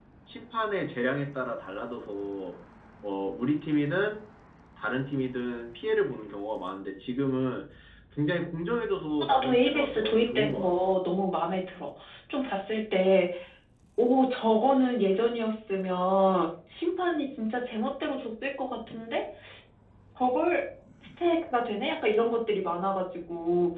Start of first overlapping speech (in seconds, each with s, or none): 9.2 s